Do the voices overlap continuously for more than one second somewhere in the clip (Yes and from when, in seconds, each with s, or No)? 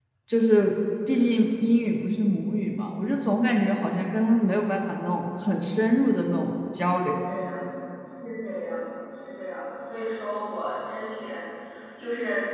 No